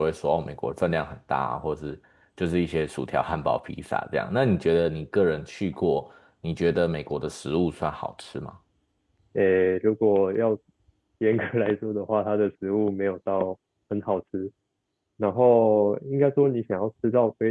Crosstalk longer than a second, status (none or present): none